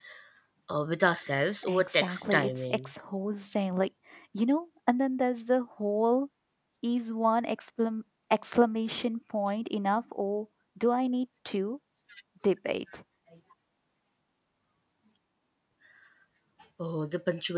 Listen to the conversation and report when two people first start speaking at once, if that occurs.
2 s

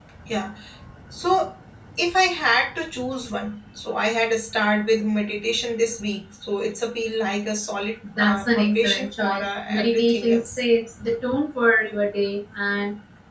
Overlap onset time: 8 s

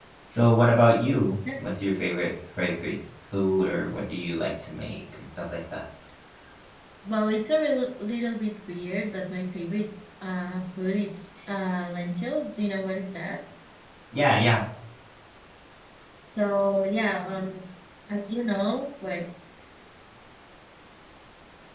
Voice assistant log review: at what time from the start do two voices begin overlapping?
none

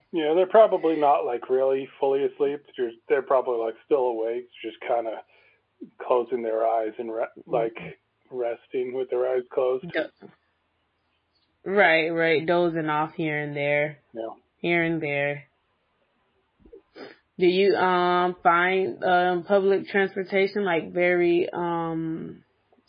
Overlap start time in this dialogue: none

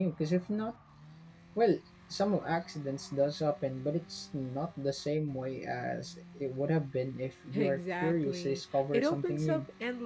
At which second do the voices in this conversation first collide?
8 s

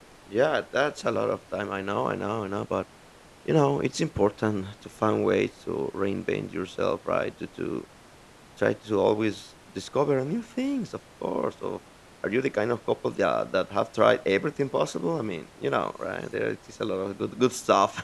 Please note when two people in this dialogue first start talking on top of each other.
none

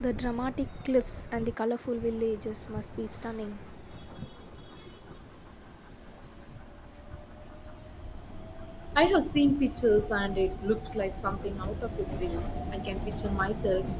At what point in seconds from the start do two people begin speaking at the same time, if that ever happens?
none

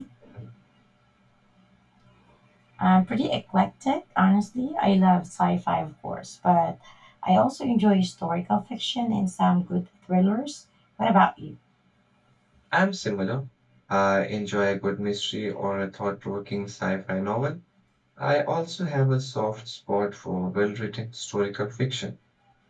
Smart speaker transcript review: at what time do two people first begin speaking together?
none

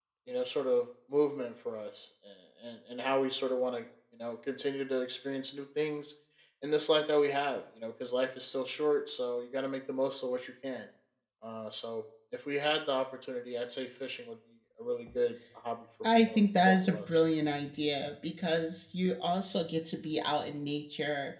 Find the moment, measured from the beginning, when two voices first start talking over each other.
16 s

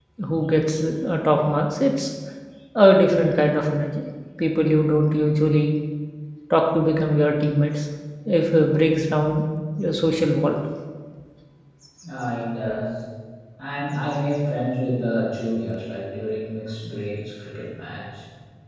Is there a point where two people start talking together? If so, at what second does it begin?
none

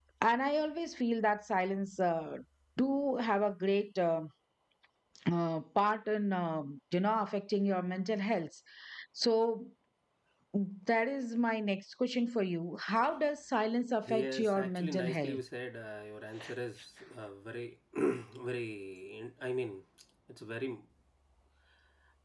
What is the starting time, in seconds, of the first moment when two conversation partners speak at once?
14 s

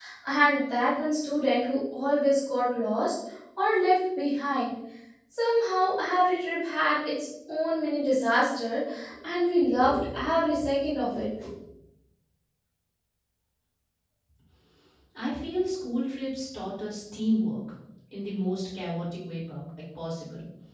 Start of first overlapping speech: none

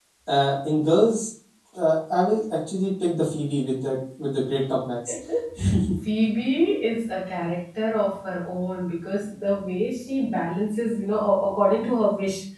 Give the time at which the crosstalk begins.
none

